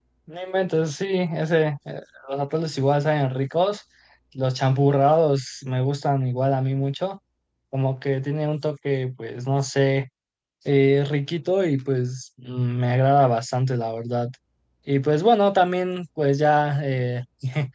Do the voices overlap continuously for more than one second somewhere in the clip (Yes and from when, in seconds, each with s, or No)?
No